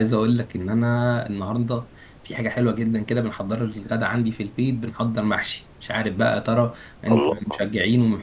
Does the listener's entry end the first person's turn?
No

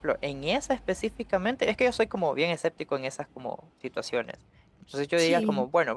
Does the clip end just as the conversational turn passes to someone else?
No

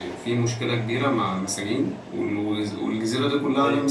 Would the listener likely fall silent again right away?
Yes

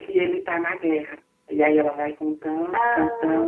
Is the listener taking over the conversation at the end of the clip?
No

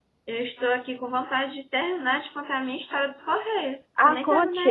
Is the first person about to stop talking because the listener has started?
Yes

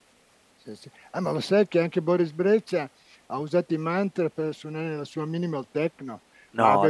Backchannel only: Yes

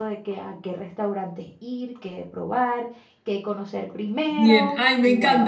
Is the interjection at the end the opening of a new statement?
Yes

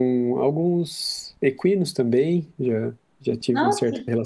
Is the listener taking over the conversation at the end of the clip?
No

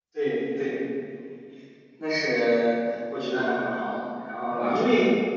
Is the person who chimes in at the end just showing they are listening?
Yes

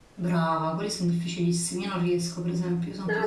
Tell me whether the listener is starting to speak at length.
Yes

